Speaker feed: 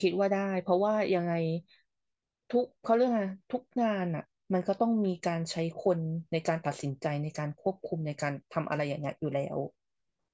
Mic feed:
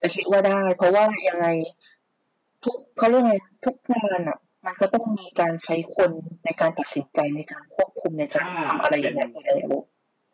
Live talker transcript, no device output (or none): ถ้าเป็น